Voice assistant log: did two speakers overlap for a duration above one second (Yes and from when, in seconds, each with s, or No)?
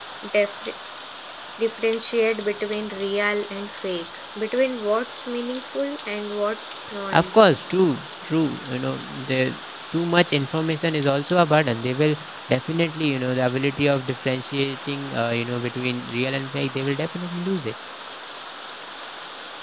No